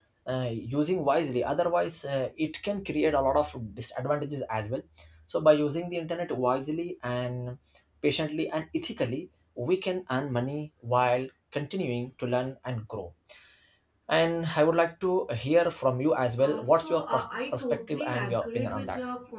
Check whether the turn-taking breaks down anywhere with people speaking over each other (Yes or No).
Yes